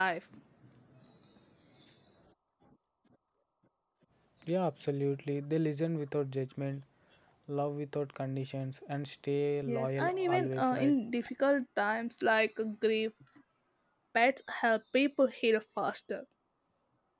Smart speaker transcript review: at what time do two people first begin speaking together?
9.7 s

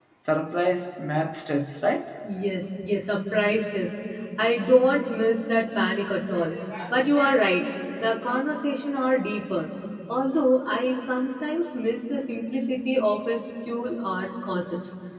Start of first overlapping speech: none

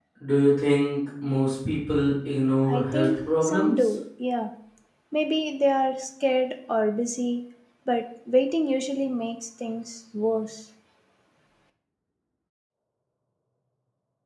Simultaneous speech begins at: 2.7 s

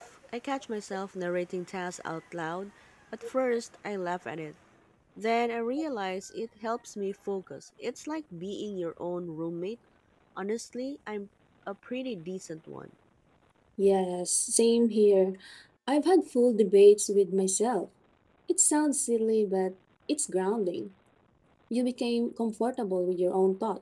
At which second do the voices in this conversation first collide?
none

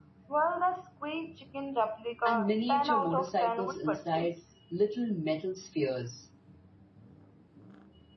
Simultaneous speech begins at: 2.2 s

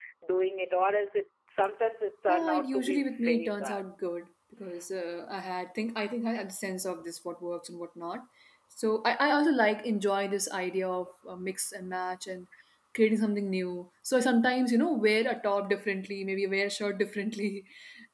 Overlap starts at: 2.3 s

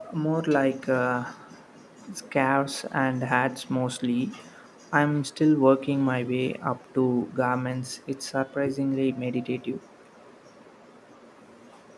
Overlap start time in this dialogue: none

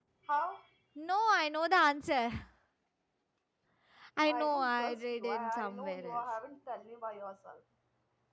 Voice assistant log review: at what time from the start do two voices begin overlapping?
4.3 s

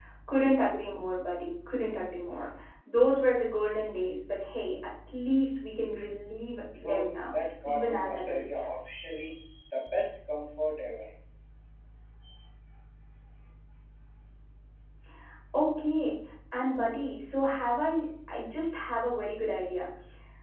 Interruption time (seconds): 6.8 s

